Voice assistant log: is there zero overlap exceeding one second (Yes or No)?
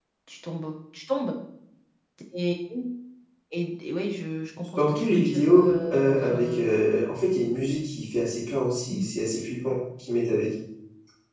No